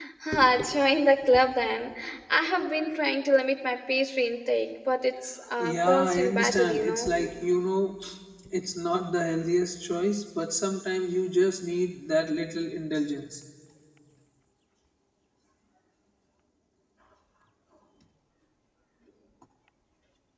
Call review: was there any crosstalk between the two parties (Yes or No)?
Yes